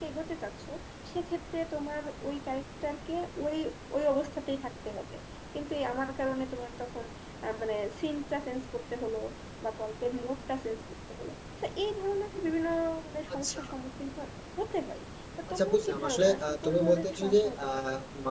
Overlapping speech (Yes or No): Yes